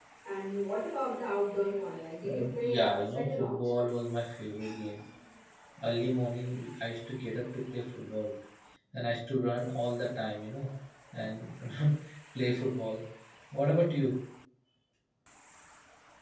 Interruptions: present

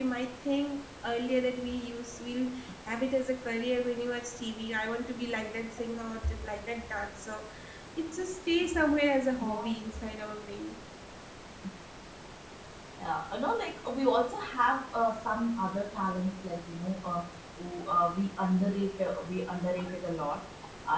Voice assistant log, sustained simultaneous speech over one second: none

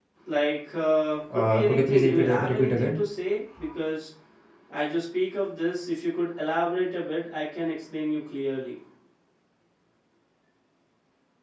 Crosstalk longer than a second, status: present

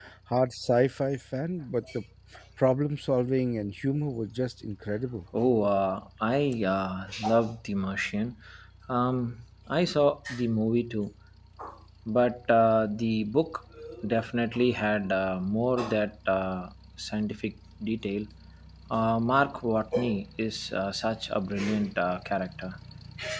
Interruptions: none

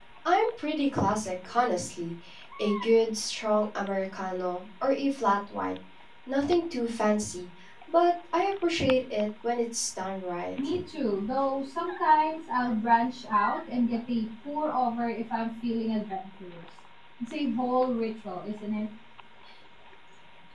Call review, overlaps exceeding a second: none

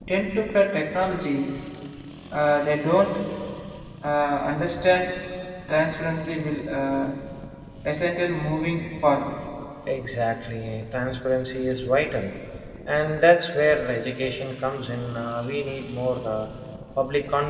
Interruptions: none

